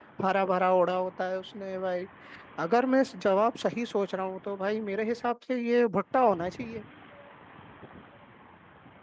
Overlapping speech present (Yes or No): No